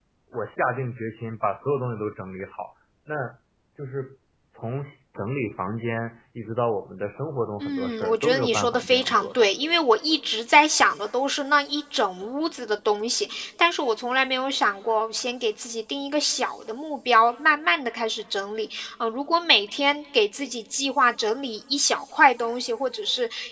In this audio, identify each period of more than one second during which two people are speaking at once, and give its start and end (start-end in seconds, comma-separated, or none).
7.6-9.5